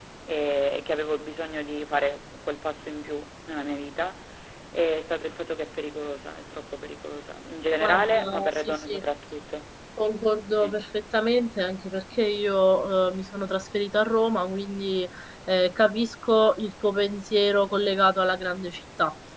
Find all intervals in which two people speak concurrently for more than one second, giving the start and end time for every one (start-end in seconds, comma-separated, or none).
7.8-9.0